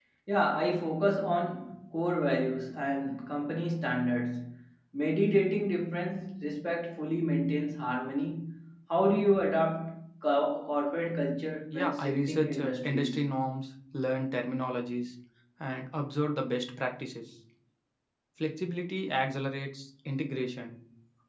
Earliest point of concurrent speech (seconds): 11.7 s

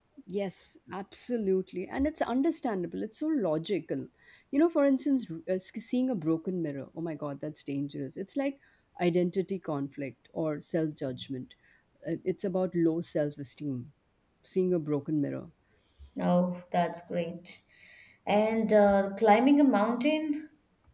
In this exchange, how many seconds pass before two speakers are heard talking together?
none

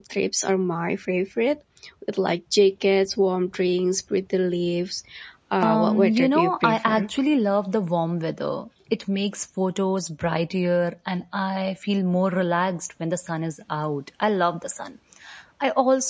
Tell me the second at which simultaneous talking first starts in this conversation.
5.6 s

